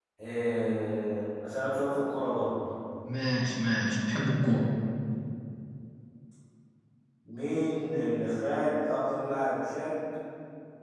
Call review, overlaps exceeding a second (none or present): none